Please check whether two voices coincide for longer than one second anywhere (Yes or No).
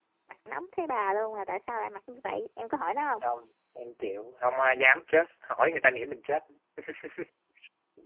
No